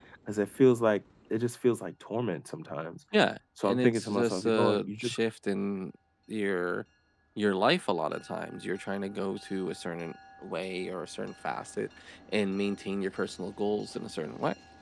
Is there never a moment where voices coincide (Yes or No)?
No